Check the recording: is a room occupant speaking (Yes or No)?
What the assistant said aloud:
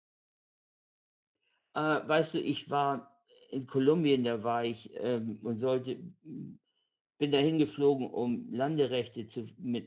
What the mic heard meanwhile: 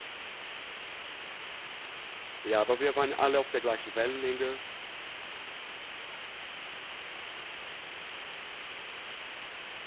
Yes